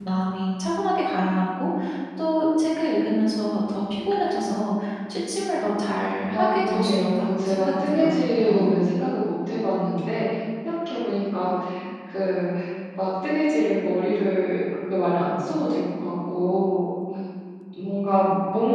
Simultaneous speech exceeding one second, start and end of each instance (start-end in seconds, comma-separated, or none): 6.3-8.8